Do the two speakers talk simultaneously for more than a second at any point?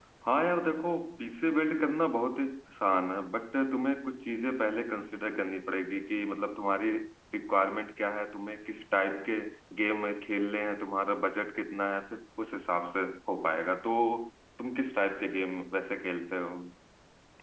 No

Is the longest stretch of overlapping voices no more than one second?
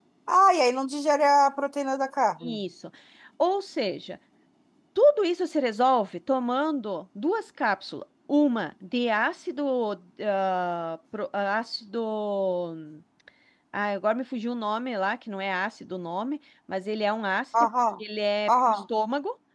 Yes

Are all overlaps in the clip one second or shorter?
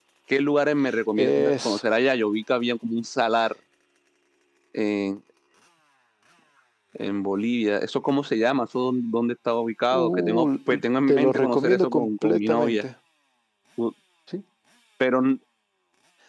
No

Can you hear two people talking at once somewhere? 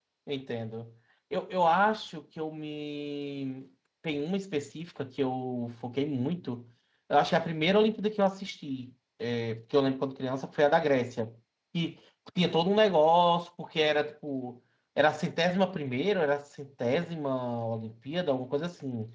No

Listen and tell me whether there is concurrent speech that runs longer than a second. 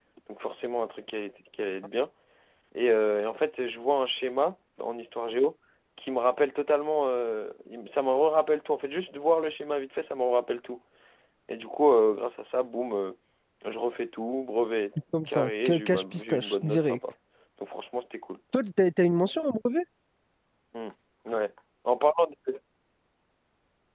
Yes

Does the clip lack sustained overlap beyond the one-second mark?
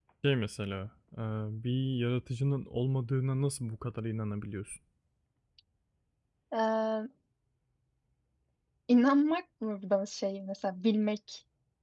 Yes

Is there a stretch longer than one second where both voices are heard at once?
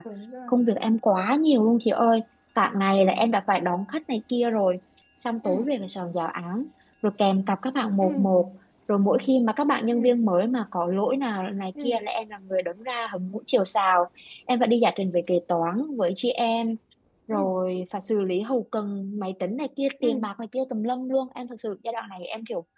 No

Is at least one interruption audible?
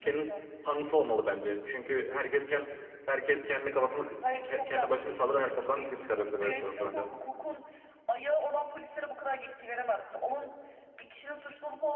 Yes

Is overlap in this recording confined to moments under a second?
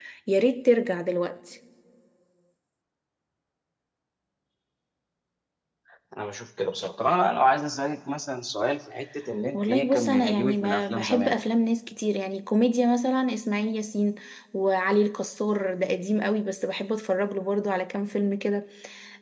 No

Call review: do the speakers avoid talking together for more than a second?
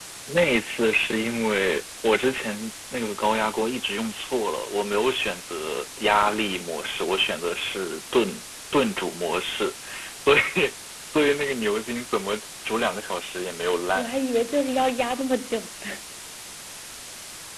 Yes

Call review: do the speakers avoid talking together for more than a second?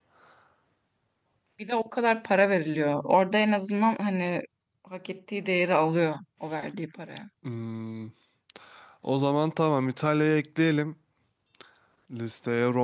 Yes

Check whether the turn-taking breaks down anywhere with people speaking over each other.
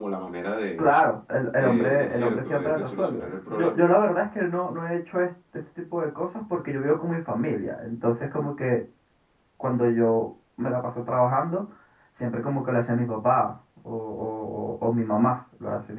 Yes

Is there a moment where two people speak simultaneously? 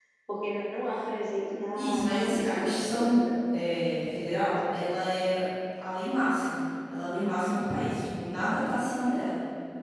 Yes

